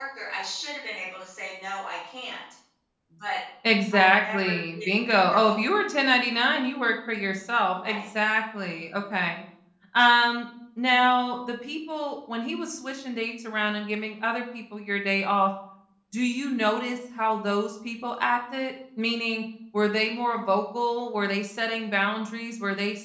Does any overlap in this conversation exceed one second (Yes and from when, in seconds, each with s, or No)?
Yes, from 3.9 s